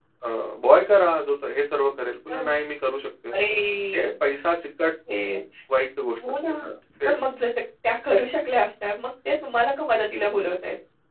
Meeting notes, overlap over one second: none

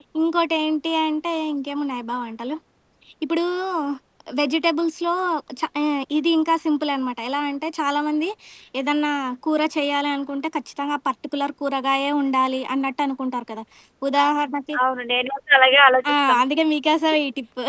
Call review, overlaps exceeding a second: none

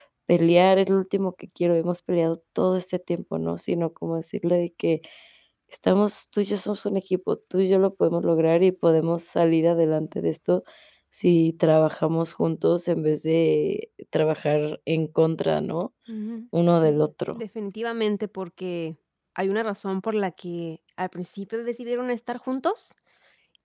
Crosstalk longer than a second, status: none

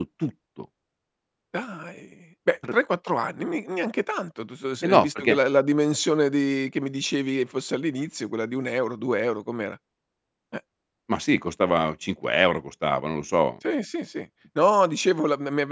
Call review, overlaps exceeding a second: none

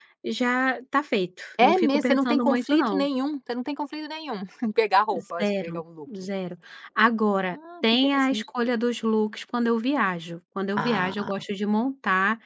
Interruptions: present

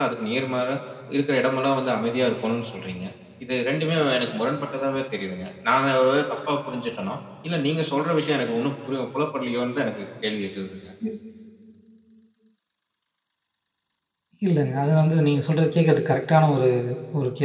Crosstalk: none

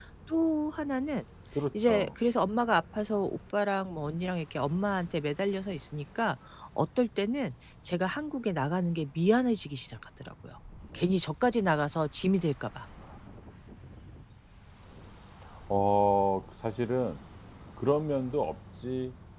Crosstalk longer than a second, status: none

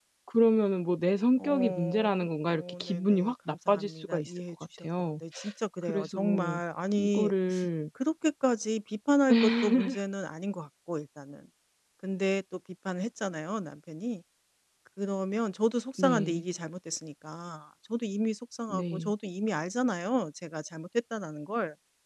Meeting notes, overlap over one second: present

